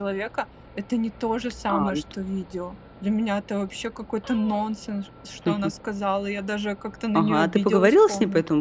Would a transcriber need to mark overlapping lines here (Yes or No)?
Yes